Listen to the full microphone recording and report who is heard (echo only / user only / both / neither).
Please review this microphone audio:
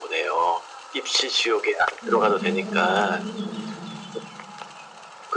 both